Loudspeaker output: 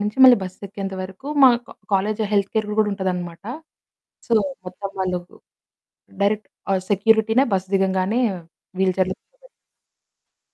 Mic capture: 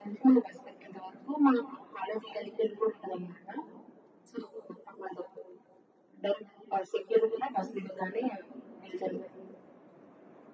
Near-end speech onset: none

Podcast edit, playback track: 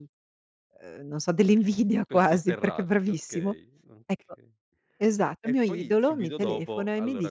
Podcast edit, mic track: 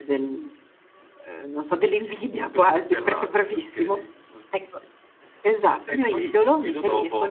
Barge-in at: none

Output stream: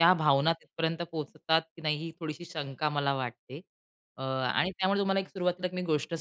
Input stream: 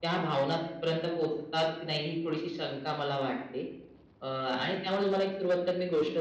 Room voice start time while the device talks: none

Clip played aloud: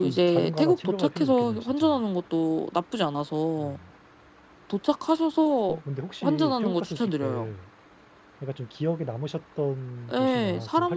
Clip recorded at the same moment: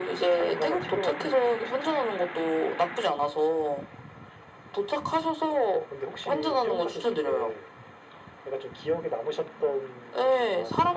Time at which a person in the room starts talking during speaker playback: none

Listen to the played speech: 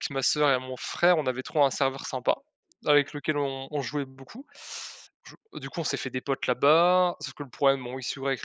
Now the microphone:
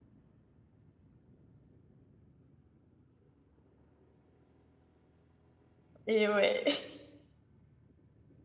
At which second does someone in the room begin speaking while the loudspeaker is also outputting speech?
6 s

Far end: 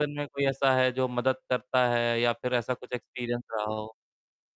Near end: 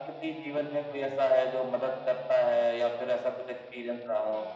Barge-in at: none

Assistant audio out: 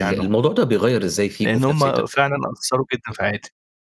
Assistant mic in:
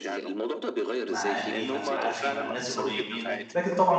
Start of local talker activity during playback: 1 s

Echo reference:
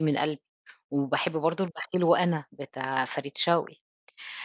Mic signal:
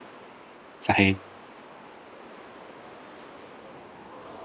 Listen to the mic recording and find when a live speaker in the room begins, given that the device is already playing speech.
1 s

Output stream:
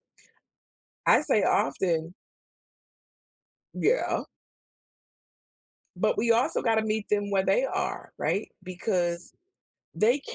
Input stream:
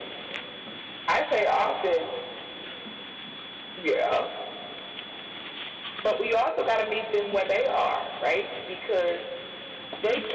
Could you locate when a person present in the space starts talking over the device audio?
none

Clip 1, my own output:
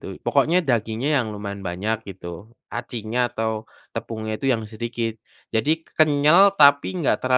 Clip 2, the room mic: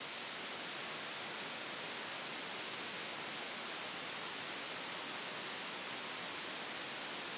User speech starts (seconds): none

